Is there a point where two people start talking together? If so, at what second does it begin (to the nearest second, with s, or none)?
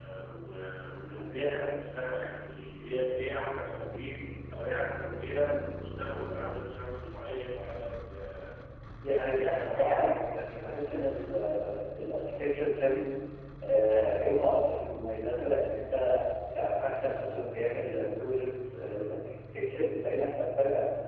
9 s